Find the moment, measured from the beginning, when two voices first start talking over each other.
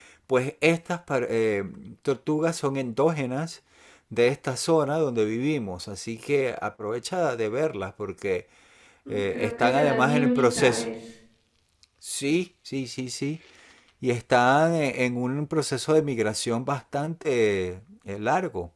9.1 s

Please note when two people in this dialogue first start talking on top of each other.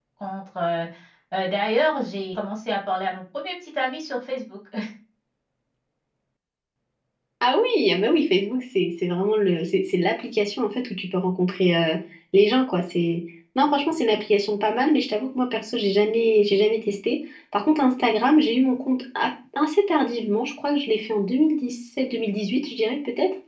none

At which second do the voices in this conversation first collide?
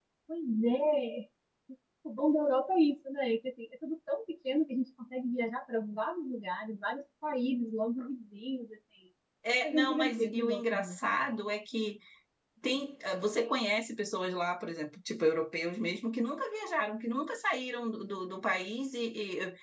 9.6 s

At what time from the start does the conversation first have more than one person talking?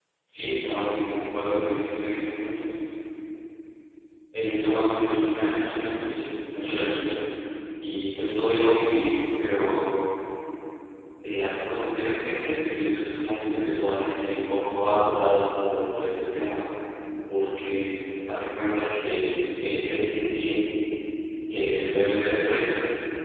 none

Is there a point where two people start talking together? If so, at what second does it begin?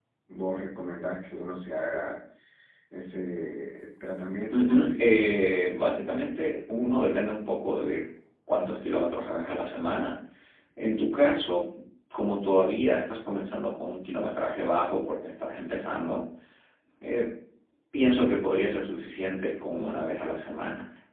4.5 s

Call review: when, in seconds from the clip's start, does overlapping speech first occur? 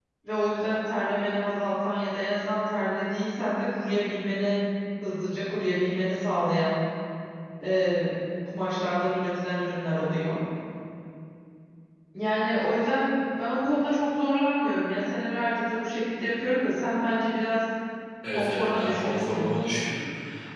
18.3 s

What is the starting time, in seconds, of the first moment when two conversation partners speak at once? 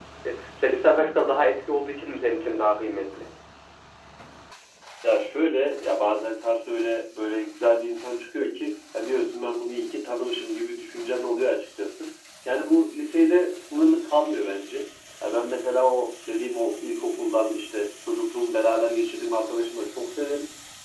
none

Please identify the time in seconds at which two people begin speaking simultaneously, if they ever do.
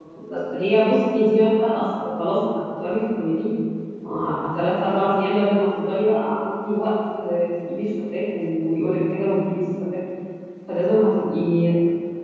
none

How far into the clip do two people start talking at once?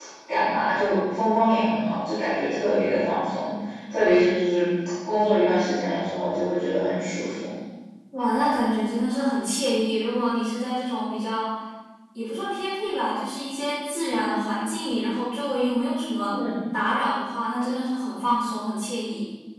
none

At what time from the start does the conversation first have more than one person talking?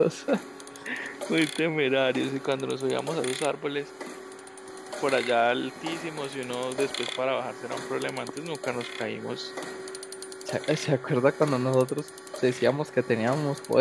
none

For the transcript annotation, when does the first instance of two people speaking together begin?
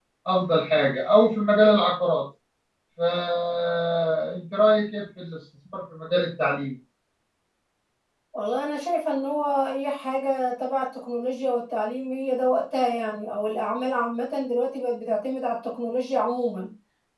none

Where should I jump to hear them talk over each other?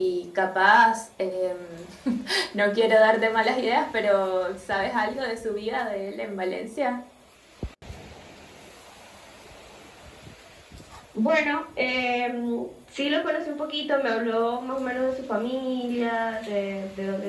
none

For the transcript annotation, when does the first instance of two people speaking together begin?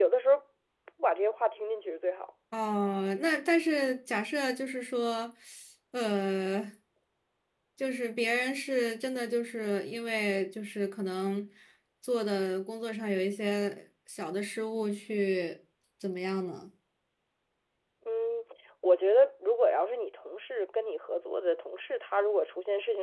none

